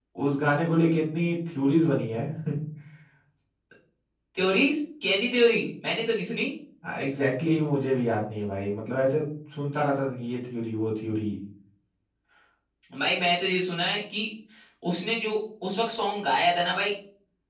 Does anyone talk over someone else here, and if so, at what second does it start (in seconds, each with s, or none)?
none